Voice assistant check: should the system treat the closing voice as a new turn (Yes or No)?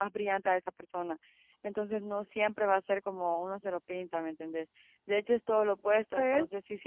No